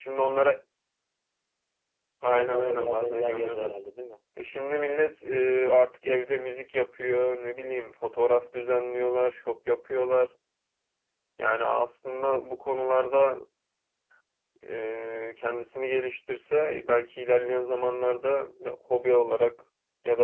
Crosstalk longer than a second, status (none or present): present